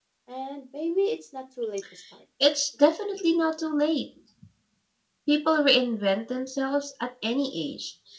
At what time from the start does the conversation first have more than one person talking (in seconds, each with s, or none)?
none